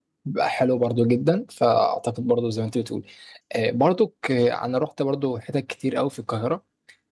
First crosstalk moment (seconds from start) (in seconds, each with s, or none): none